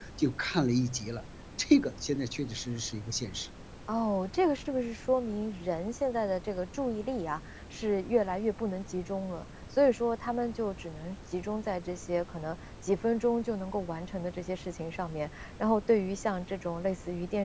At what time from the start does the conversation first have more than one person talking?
none

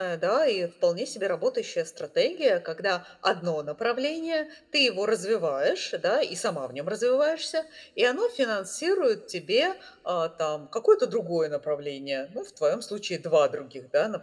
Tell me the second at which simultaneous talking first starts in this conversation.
none

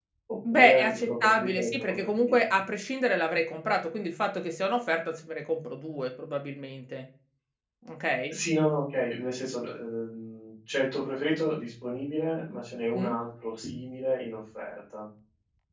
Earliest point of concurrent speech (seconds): 0.5 s

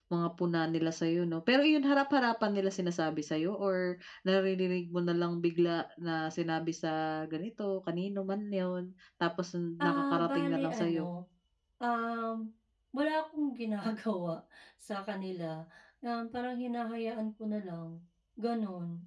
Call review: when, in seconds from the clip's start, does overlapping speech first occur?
9.8 s

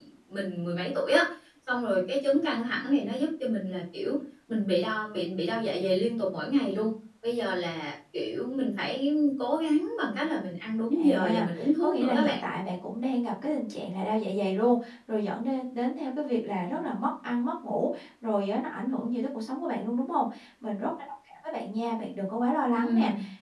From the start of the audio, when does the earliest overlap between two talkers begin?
10.9 s

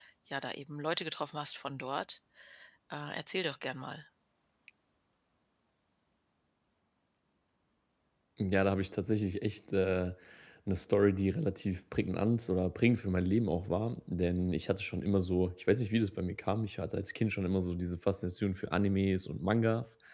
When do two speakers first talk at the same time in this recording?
none

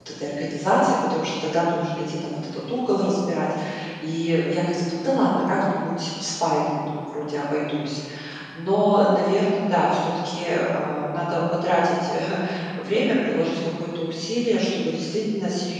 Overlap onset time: none

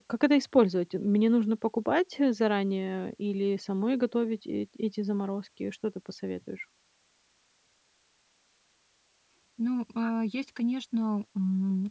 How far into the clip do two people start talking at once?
none

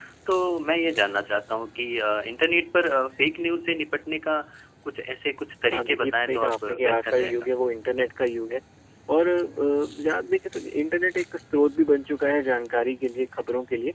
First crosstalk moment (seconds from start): 5.7 s

